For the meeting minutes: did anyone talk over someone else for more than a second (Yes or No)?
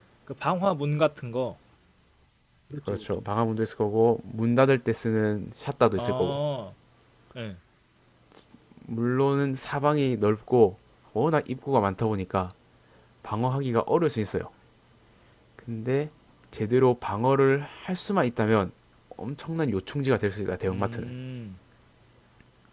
No